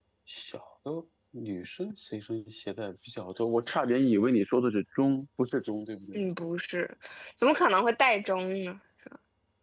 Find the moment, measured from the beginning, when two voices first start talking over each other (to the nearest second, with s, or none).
none